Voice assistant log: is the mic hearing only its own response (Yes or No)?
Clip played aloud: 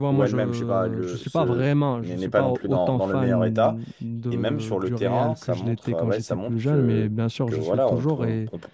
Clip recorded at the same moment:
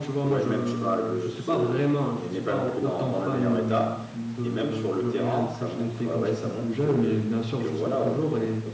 Yes